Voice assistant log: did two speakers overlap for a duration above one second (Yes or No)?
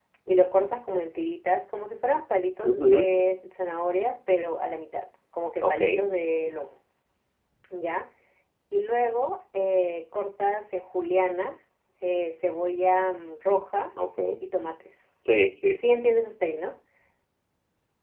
No